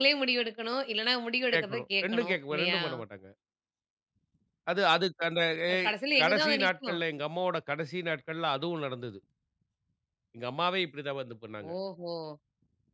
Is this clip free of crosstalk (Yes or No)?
No